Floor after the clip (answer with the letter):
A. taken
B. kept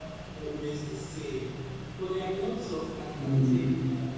B